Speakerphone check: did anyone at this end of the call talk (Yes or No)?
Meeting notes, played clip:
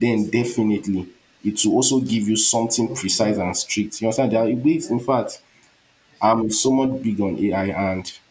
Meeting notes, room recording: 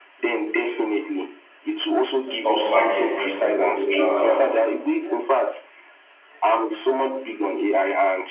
Yes